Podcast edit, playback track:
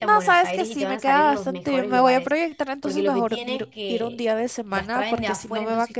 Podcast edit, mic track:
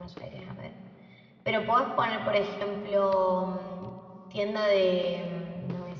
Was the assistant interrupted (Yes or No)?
Yes